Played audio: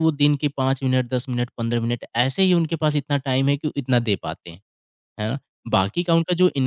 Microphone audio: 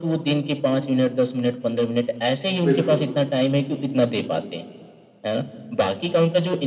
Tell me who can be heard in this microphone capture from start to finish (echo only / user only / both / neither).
both